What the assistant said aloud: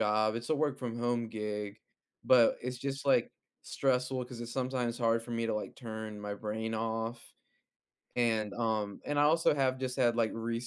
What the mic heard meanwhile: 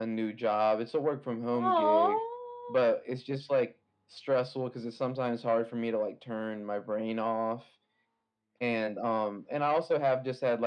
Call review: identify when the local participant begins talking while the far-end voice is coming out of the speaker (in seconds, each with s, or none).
1.5 s